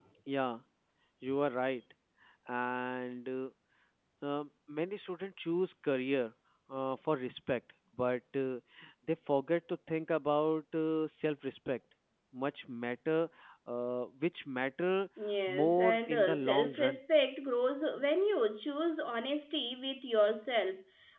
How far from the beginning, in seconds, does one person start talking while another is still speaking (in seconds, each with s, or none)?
15.6 s